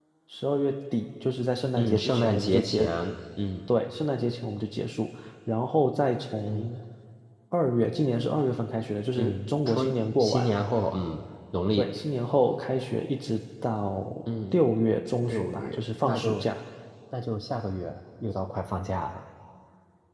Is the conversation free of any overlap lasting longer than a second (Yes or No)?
No